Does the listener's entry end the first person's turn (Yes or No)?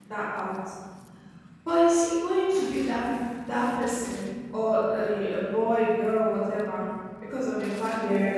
No